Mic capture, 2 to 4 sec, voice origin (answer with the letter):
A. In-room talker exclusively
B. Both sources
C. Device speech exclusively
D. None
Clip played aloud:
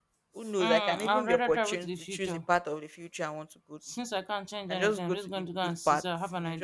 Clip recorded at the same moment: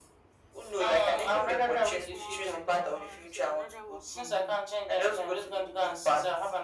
B